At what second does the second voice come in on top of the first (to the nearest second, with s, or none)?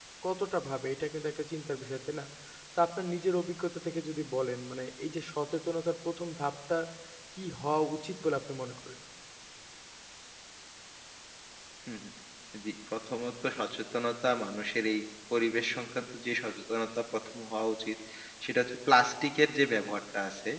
none